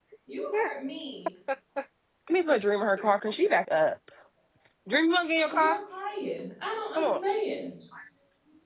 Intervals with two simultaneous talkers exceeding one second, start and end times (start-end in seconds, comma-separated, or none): none